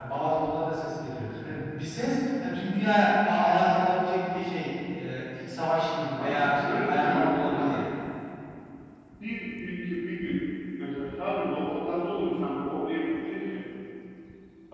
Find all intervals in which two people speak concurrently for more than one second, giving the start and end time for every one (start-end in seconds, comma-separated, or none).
6.1-7.7